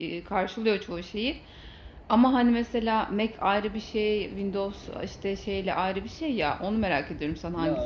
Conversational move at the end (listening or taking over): taking over